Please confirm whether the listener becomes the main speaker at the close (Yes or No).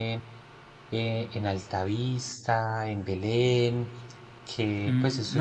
Yes